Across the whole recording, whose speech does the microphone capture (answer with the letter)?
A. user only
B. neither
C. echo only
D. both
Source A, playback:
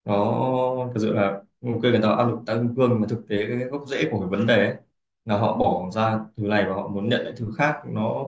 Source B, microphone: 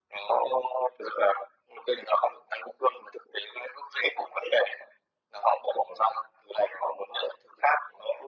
C